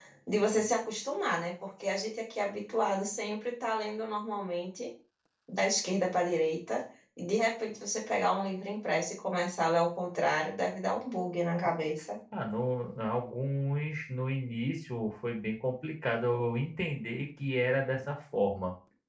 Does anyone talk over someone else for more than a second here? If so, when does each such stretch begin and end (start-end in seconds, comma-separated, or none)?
none